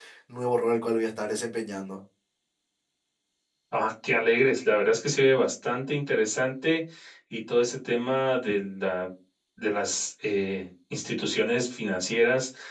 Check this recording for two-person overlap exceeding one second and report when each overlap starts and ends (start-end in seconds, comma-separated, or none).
none